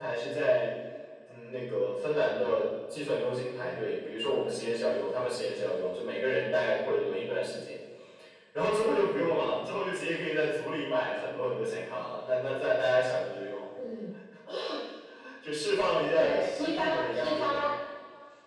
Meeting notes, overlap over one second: present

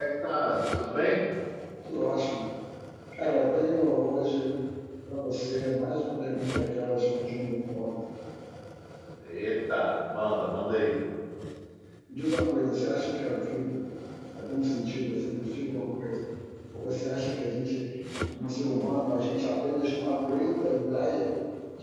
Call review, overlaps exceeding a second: none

